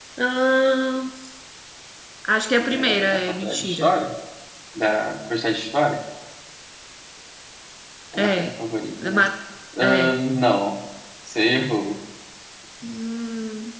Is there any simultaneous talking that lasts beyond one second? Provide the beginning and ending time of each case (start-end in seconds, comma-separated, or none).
2.6-3.8